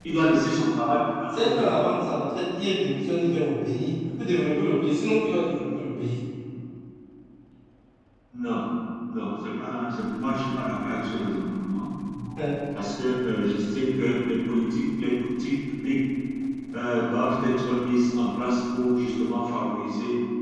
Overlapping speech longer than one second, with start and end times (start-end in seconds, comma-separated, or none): none